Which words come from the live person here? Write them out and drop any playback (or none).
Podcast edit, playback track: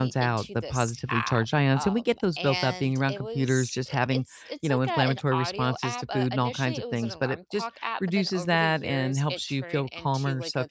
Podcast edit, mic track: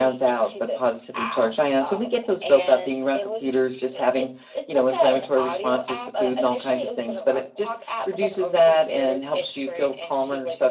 none